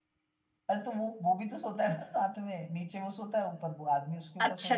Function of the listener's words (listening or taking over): taking over